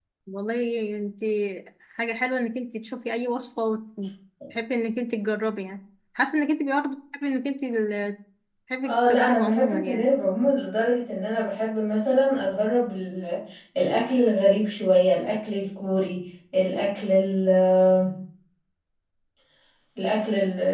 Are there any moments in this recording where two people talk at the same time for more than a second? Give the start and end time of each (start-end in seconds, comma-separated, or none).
8.8-10.1